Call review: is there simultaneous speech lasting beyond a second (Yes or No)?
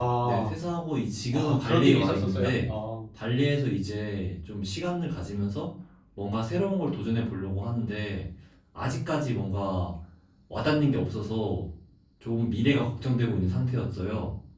Yes